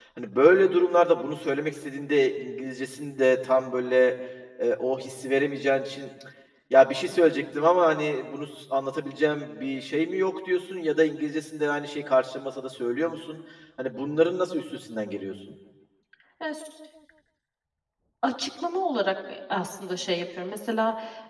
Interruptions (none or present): none